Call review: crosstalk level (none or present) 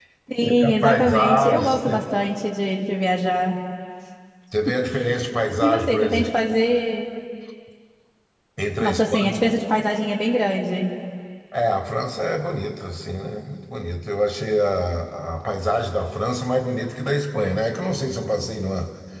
present